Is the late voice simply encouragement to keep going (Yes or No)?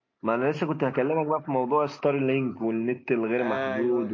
Yes